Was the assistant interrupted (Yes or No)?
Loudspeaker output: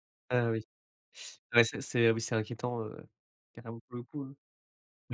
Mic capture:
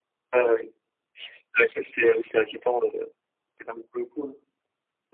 No